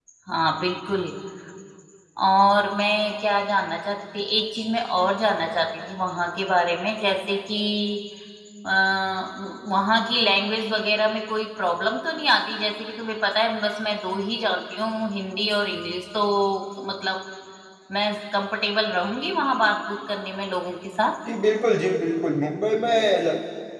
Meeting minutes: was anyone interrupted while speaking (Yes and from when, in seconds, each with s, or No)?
No